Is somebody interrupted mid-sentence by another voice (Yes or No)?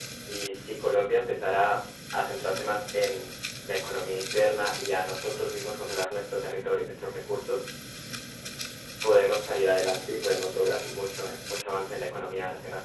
No